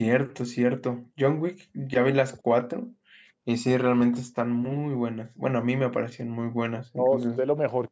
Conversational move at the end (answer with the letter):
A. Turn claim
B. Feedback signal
A